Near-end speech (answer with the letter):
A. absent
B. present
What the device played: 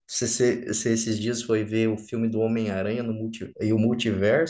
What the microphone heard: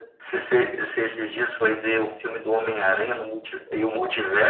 A